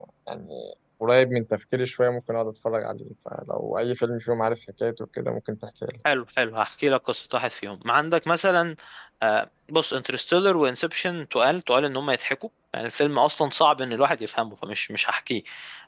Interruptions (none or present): none